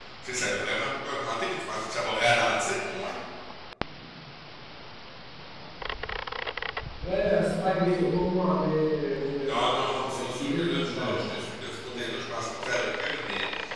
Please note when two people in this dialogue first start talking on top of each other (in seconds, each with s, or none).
9.4 s